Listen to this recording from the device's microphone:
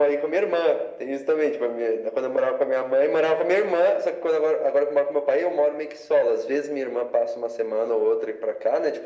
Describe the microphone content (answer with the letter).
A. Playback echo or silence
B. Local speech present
A